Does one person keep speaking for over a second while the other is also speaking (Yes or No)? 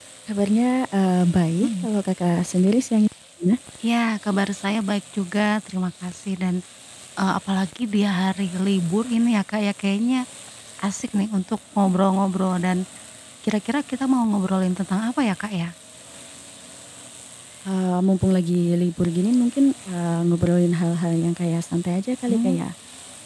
No